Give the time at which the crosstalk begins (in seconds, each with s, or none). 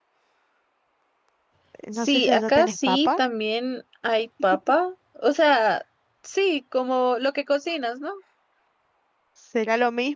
2.0 s